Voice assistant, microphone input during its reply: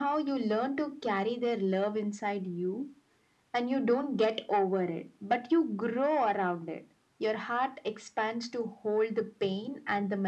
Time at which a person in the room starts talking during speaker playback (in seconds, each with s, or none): none